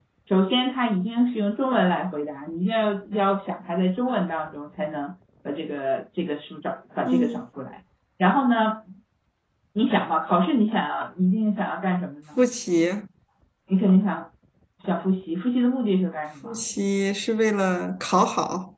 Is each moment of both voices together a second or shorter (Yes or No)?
Yes